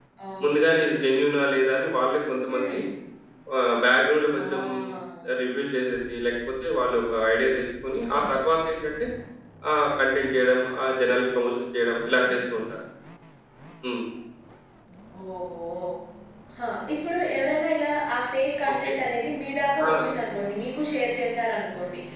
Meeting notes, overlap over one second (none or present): none